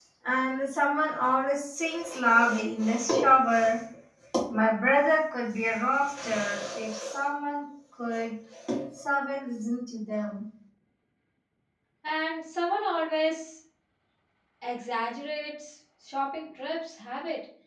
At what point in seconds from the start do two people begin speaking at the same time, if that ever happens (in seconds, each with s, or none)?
none